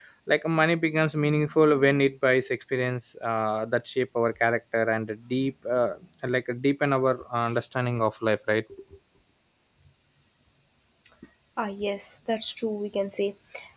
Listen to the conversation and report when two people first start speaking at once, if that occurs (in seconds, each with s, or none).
none